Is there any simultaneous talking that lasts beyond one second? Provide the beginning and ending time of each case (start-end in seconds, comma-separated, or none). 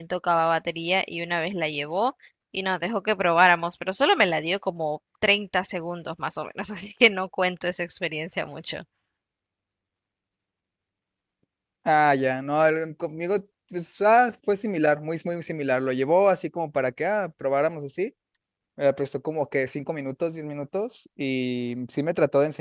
none